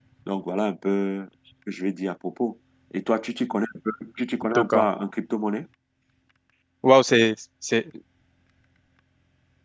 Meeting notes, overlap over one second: none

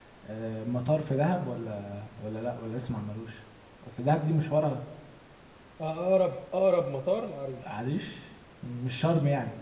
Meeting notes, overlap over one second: none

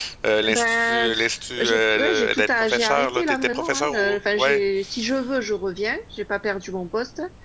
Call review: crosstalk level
present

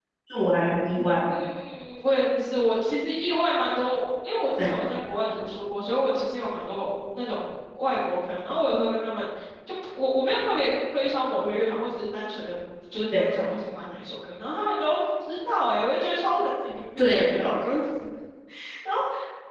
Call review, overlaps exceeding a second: none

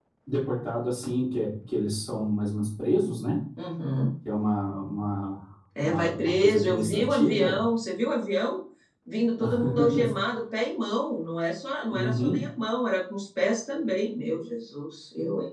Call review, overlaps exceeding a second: present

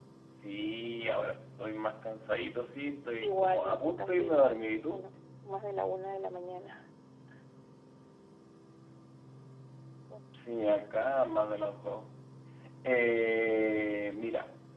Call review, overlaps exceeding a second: present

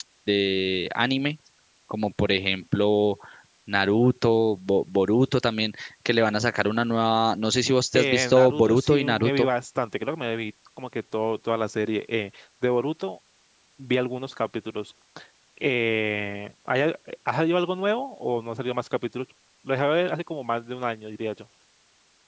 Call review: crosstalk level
present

